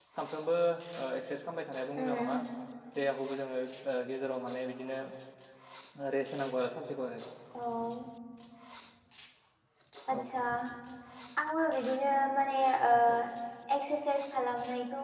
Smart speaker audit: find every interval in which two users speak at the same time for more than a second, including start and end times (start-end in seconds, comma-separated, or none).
none